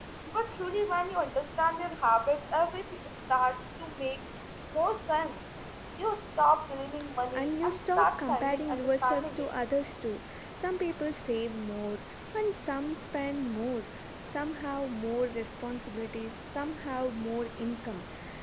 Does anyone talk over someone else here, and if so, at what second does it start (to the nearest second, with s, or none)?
7 s